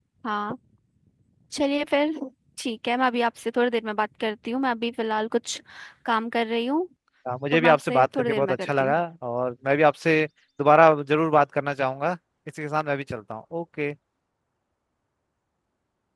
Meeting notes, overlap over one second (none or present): present